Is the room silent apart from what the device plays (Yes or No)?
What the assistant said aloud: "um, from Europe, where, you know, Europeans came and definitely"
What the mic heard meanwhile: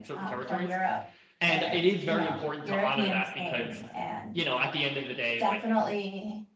No